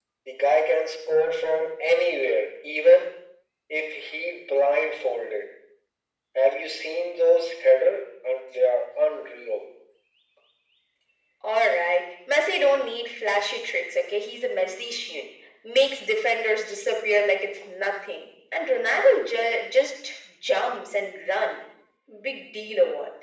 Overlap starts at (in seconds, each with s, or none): none